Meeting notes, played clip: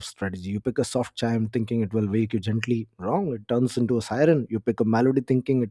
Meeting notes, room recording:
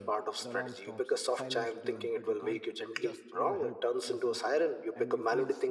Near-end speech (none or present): present